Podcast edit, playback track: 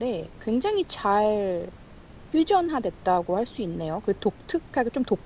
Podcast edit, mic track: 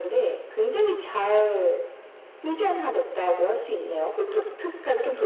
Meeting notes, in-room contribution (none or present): none